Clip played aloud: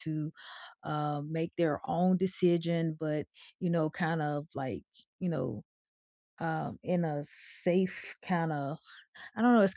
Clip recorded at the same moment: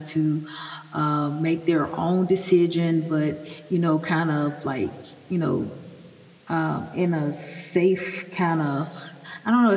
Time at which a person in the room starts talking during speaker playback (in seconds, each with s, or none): none